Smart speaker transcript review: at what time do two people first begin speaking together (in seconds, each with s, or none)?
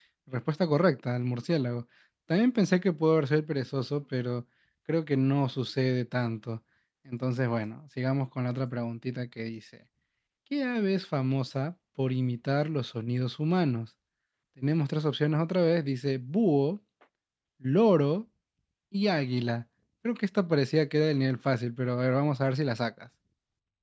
none